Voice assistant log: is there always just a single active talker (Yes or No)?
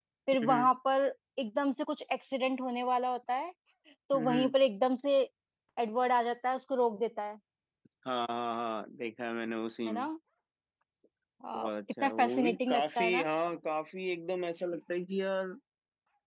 No